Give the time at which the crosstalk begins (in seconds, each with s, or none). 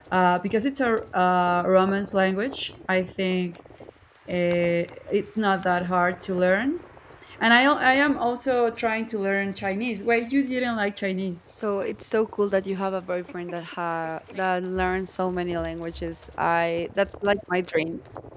none